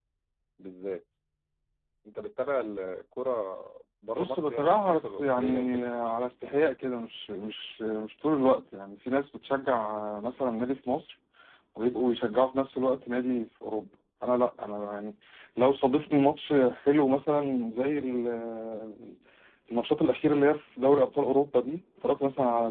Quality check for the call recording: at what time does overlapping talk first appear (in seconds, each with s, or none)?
4.2 s